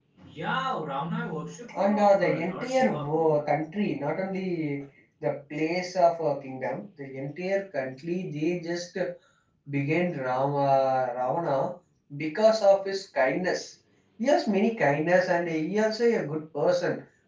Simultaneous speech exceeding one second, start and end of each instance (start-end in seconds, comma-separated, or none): 1.7-3.5